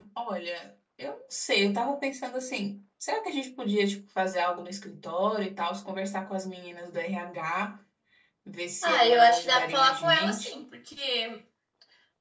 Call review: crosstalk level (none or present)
present